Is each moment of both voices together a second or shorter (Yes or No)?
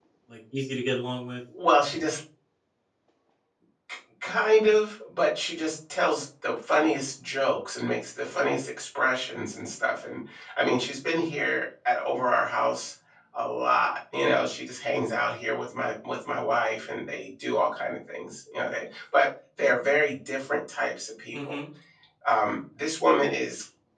Yes